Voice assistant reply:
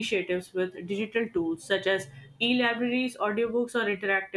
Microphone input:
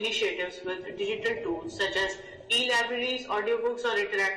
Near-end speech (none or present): none